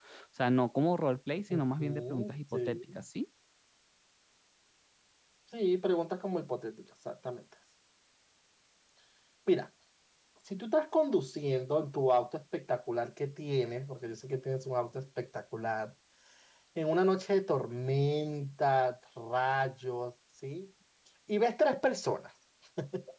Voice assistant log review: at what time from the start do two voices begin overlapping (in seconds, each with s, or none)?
1.5 s